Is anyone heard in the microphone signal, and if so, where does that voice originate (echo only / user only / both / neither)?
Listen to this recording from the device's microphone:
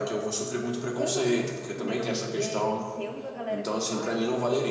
echo only